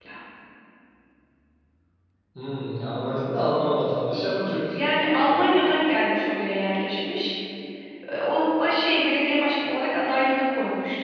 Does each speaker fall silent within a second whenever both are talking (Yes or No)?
Yes